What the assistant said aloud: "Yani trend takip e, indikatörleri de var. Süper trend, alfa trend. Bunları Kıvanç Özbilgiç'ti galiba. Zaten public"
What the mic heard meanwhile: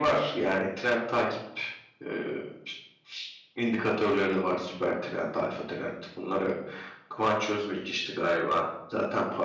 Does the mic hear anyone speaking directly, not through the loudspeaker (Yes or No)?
No